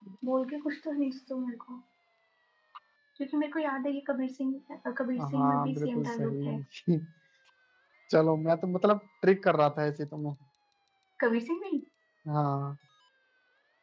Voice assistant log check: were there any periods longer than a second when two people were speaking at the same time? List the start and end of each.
5.2-6.6

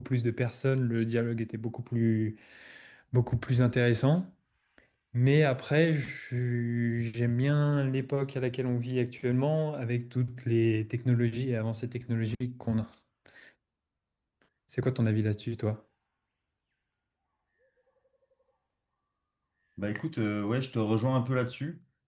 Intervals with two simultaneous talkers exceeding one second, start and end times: none

